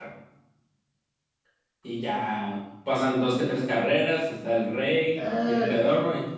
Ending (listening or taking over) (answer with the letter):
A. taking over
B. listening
A